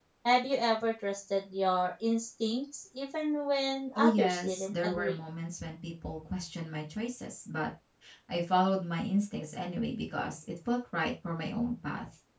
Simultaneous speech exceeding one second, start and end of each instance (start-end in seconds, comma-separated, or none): 4.0-5.2